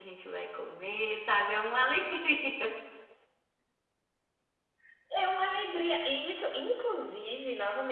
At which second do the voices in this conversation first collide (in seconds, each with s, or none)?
none